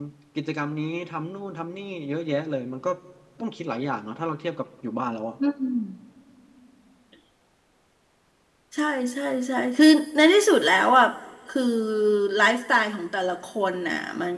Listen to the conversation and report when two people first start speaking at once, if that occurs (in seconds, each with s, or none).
none